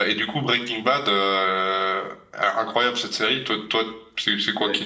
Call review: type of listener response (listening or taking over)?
taking over